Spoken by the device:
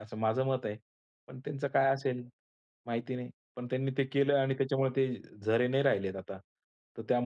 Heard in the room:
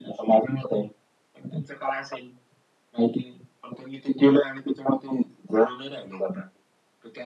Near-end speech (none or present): none